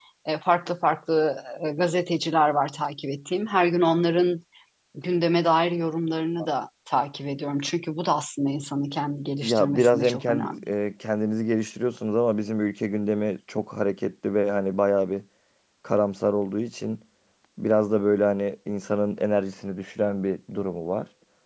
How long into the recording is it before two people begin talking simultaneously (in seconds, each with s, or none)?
9.4 s